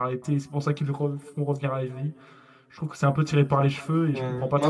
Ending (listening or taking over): taking over